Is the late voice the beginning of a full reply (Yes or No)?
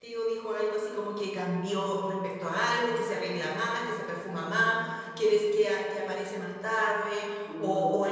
No